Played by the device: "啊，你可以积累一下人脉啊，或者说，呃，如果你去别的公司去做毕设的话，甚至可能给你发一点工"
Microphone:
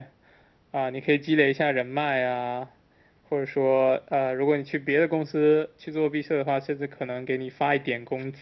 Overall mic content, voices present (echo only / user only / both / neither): echo only